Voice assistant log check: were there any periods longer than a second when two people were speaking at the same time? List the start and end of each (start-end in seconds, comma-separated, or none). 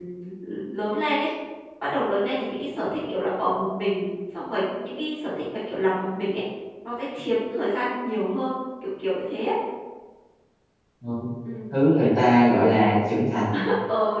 none